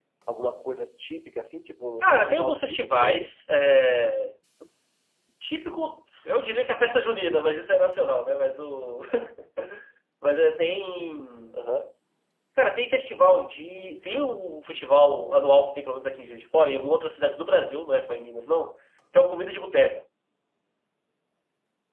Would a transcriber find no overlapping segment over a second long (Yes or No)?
No